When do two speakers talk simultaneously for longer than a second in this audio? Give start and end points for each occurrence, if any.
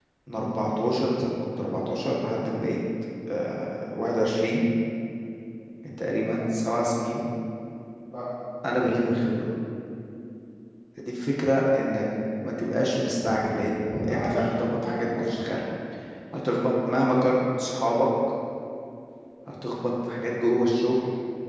14.0-15.3

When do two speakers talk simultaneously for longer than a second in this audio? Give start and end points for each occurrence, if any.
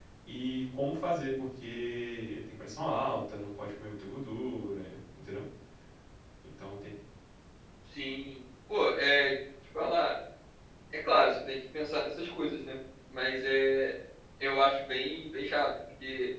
none

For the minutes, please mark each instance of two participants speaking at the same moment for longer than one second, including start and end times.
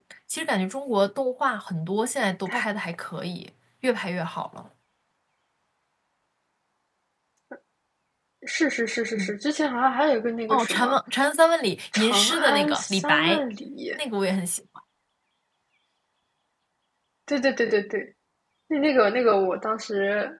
12.0-13.4

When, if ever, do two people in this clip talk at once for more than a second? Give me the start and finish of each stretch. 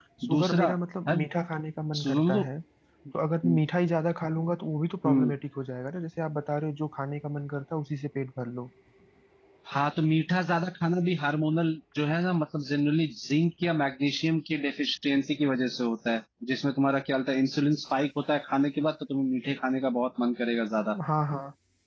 none

